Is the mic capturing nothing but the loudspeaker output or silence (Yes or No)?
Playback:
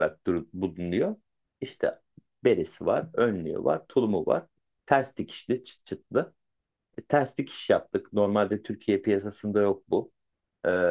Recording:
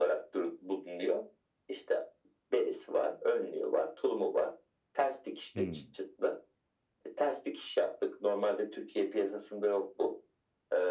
No